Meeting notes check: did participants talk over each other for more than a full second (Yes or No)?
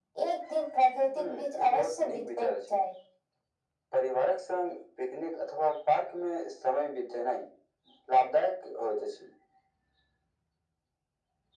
Yes